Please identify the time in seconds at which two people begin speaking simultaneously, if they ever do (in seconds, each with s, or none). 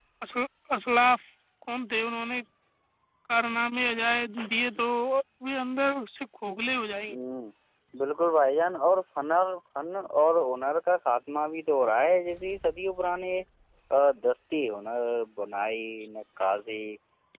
none